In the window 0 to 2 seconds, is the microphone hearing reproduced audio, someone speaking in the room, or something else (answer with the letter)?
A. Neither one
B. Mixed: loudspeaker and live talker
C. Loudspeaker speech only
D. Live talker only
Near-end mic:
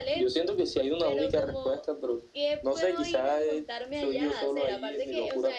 C